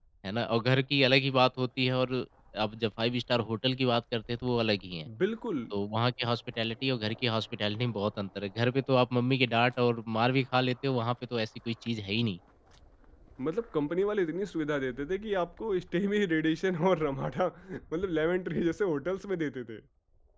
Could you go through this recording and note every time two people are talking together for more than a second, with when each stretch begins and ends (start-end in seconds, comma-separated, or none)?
none